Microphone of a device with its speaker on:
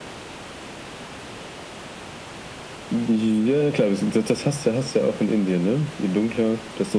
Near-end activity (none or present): none